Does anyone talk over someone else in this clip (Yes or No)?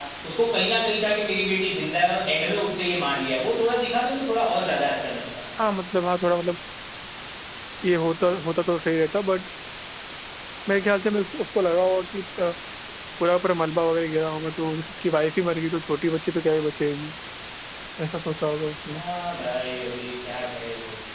No